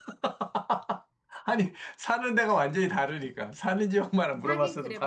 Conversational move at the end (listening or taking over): taking over